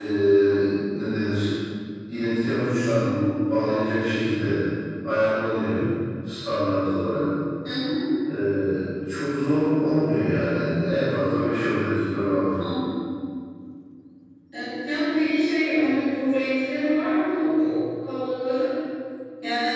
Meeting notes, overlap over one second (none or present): none